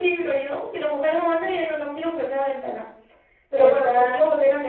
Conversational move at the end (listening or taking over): listening